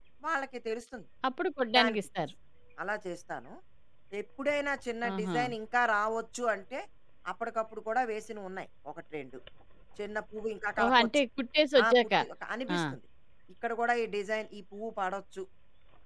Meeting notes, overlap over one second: none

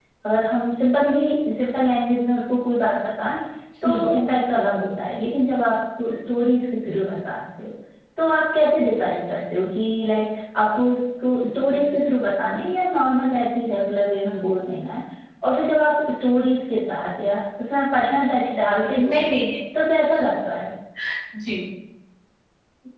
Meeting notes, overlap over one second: none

